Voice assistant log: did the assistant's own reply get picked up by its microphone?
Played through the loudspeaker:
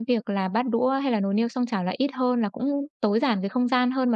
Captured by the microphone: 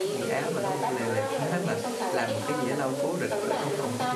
Yes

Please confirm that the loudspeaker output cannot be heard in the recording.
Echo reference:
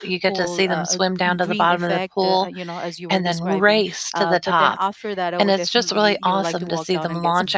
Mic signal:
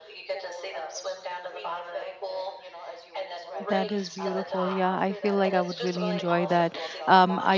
No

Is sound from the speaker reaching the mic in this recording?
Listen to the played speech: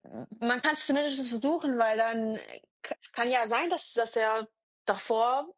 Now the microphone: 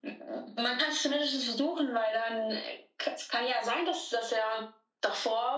Yes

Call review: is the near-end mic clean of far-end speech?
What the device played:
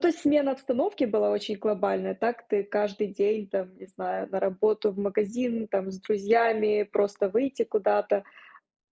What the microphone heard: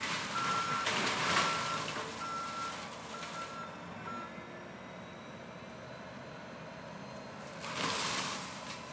Yes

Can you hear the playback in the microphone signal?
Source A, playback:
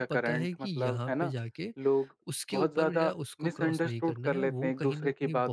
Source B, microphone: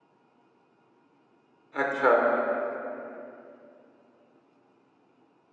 No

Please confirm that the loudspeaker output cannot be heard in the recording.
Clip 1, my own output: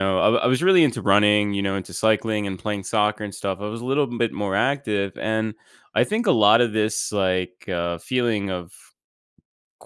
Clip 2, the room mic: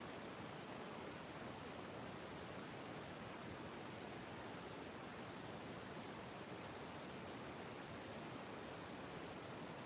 Yes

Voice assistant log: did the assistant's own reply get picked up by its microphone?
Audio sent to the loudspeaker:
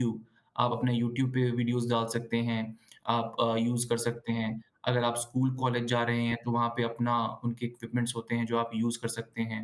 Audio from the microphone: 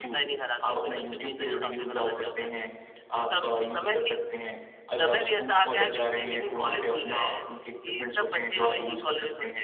Yes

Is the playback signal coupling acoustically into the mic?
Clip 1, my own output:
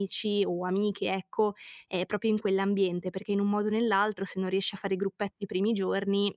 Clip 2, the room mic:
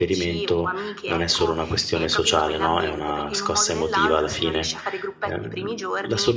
Yes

